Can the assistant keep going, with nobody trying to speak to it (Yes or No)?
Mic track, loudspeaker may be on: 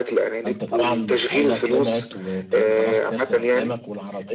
No